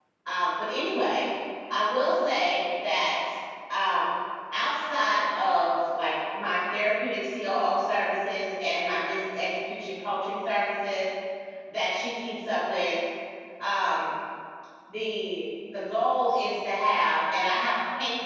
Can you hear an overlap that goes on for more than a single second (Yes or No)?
No